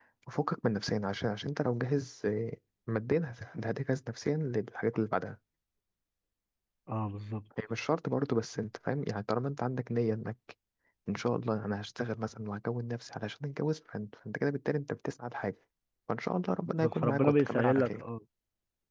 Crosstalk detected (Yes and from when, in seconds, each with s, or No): Yes, from 16.6 s